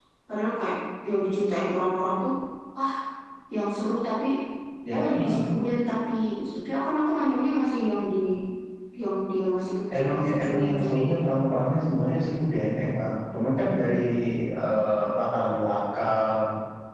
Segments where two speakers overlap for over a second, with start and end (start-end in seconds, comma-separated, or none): 10.0-11.3